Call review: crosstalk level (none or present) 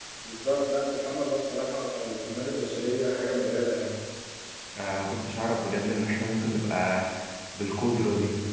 none